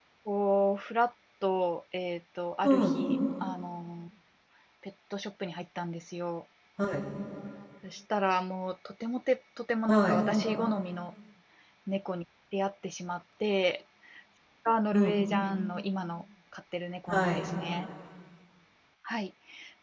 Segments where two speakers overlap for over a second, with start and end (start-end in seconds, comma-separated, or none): none